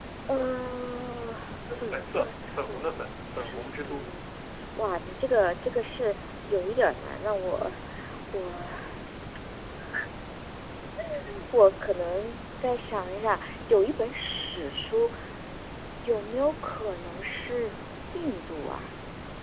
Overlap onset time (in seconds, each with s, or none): 1.7 s